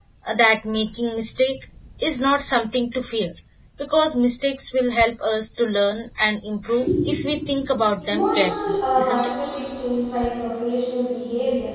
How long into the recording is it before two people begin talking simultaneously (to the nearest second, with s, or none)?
8 s